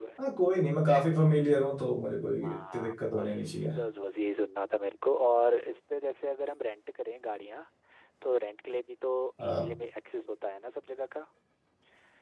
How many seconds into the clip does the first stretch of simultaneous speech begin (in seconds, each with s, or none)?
2.4 s